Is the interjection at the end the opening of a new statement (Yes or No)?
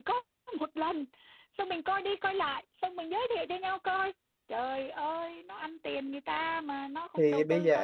Yes